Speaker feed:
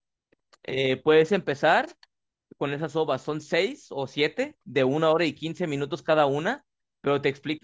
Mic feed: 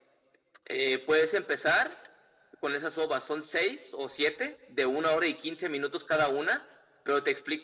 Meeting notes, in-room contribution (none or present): none